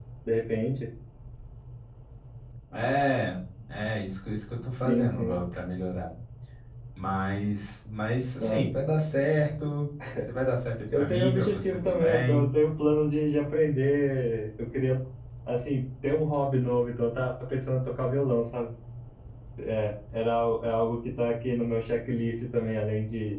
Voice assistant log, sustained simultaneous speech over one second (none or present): present